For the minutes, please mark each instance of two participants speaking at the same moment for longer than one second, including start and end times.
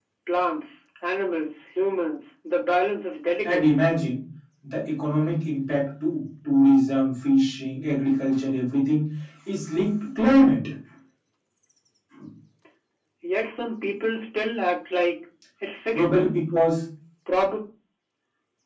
none

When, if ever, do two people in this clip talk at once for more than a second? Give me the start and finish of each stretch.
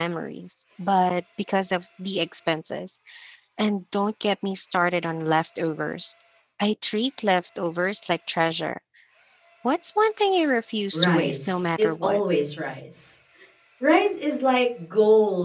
10.9-12.2

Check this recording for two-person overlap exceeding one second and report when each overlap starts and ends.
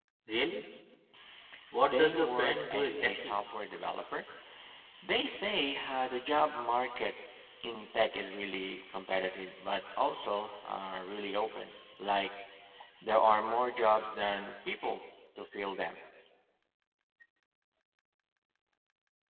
1.8-3.4

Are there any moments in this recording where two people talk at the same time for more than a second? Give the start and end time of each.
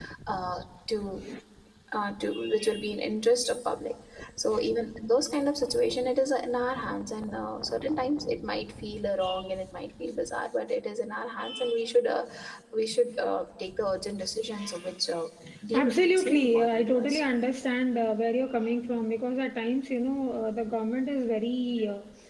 15.7-17.2

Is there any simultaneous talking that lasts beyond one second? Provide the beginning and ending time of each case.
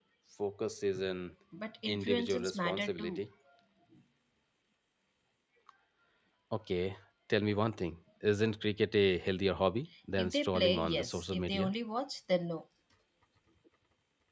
1.9-3.2, 10.2-11.7

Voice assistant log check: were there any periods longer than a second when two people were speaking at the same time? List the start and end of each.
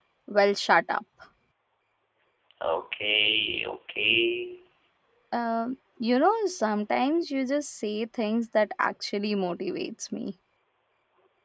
none

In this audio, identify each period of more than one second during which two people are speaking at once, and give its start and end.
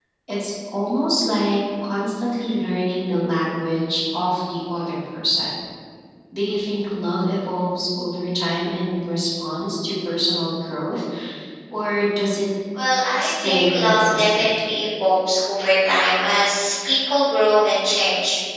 13.2-14.5

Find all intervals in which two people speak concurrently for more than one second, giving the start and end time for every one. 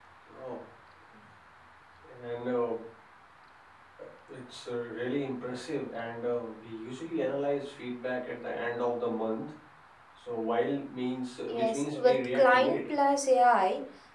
11.5-12.8

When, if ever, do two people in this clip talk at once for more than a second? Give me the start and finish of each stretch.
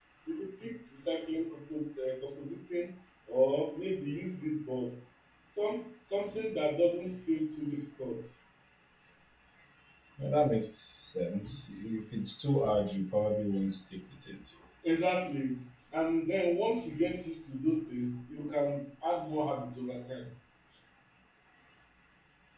none

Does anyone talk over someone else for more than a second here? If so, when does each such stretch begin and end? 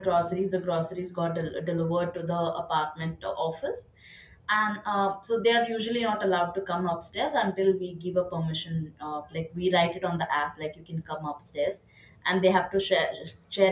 none

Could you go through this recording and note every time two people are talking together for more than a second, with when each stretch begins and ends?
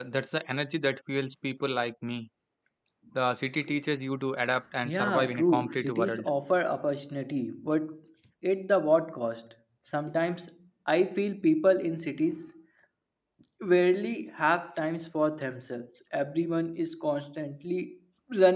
4.8-6.3

